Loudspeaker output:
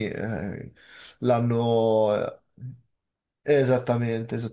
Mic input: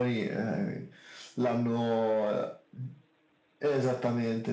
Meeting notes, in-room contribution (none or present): none